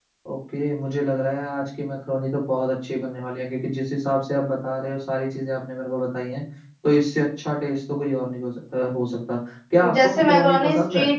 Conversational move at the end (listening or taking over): taking over